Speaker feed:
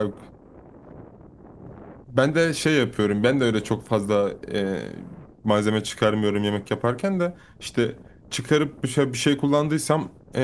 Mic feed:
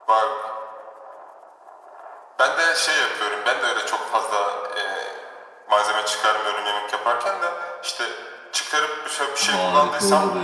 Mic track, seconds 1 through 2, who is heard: neither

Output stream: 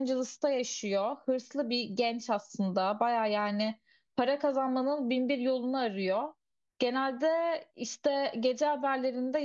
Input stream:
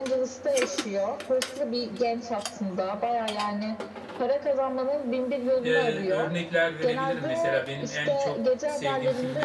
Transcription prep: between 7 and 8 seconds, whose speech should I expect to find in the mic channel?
both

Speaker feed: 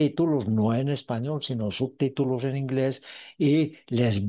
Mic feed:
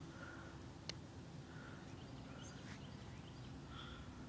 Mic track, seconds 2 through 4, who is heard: neither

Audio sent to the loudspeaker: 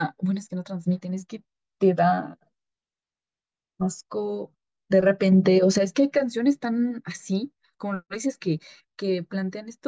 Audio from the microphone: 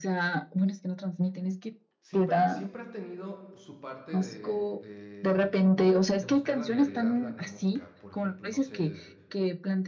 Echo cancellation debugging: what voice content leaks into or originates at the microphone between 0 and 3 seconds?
both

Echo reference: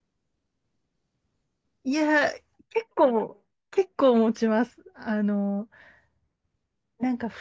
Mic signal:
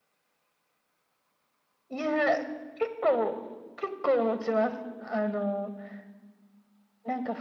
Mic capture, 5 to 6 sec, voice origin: echo only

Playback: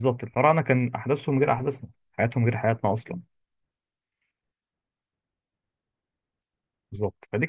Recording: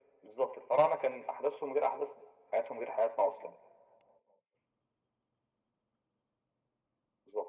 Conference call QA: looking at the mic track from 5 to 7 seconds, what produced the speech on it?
neither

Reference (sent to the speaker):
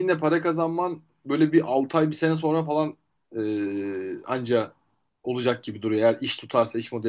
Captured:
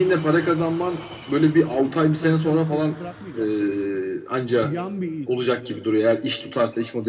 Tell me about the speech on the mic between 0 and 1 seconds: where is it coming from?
echo only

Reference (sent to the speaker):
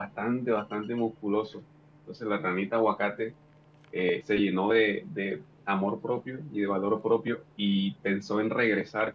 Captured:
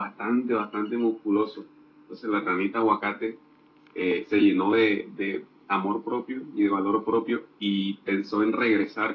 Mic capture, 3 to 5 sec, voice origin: echo only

